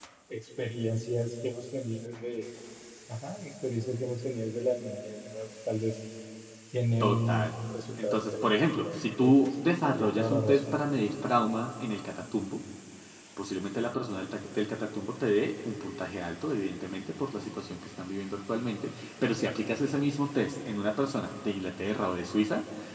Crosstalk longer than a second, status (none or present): present